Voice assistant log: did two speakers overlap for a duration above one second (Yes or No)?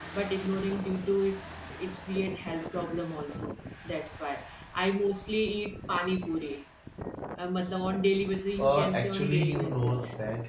Yes